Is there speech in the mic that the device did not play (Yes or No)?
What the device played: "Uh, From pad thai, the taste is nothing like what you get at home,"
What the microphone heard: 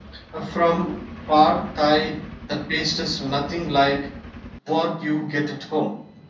No